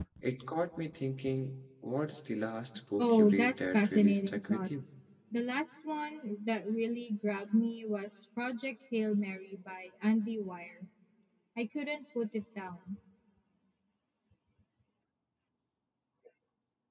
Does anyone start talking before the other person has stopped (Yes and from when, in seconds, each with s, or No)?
Yes, from 3.0 s